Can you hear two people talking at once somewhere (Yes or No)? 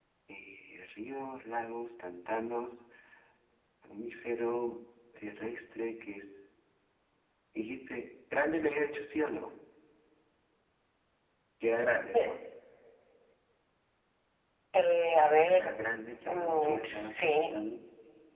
Yes